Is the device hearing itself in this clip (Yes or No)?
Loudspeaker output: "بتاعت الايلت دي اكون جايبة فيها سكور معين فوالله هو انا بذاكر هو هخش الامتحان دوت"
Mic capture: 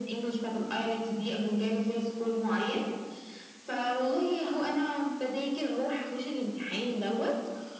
Yes